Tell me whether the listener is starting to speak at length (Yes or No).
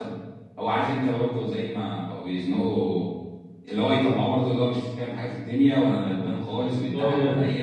No